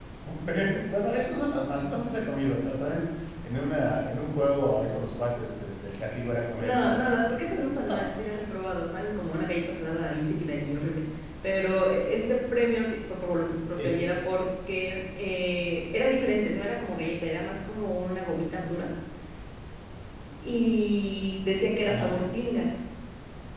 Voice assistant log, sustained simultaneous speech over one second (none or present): present